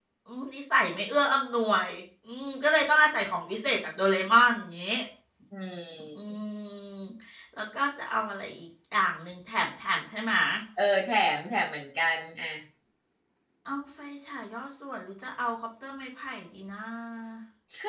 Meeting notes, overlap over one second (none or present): none